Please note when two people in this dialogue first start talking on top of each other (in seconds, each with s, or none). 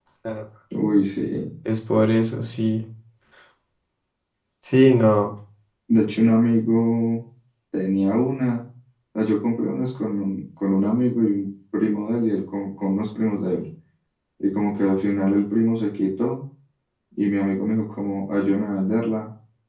none